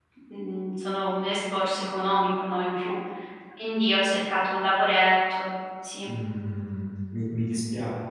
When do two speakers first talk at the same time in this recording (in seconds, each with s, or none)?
none